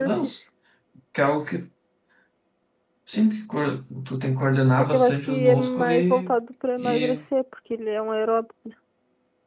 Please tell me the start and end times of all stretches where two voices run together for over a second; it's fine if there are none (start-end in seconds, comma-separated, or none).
4.8-6.3